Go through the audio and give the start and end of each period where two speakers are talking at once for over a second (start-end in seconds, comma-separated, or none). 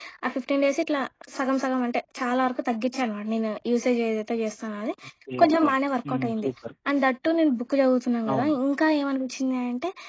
none